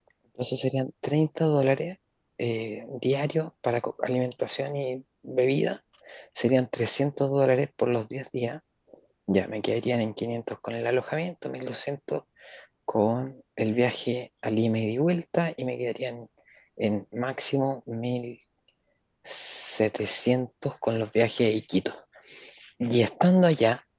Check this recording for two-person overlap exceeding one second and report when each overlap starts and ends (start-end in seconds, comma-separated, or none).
none